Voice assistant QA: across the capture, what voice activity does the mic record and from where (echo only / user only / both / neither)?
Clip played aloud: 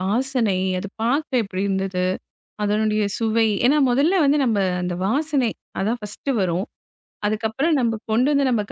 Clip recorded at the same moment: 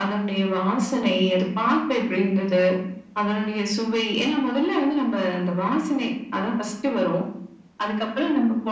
echo only